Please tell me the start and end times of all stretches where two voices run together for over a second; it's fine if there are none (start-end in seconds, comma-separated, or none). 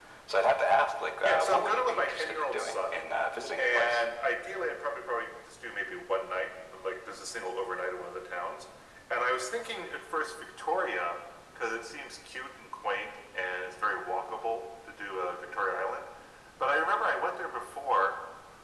1.2-3.0